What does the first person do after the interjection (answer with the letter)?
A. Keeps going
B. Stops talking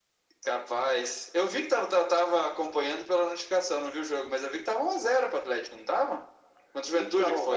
B